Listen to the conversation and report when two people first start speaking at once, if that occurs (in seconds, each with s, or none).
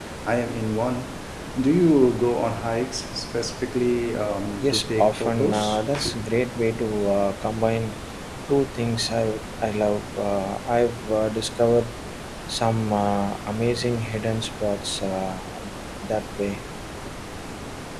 4.6 s